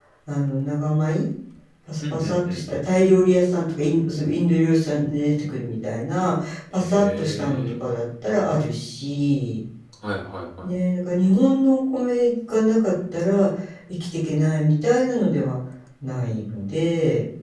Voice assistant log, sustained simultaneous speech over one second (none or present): present